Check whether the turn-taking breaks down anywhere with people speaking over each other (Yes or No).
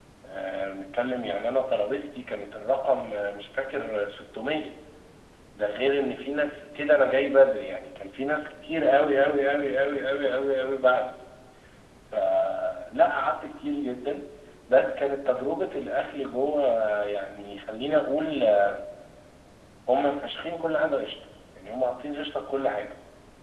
No